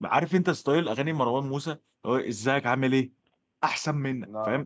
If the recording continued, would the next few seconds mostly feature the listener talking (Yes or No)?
No